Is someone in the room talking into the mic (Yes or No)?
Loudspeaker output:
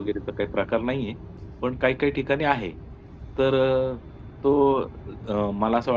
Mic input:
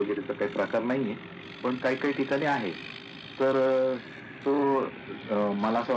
No